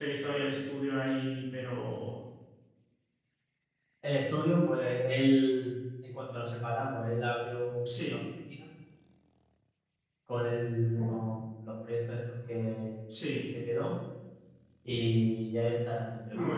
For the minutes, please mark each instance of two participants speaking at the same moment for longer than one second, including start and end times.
none

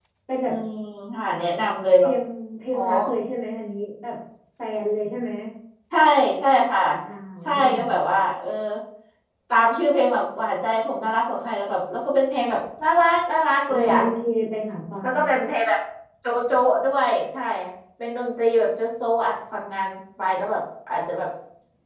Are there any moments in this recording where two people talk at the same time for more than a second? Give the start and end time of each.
none

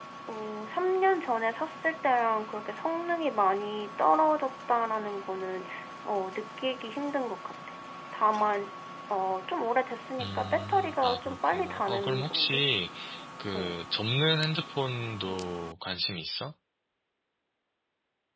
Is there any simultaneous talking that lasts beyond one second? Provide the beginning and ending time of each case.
10.2-12.6

